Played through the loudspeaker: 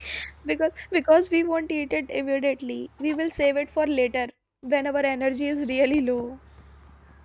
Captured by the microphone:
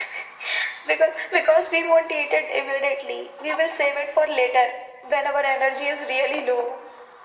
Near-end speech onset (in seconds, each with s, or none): none